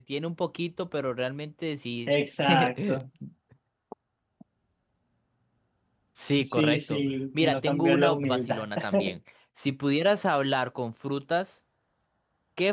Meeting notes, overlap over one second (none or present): present